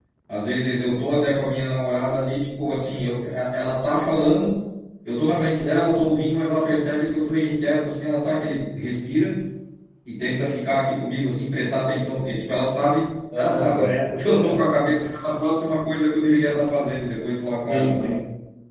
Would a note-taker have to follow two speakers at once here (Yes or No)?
Yes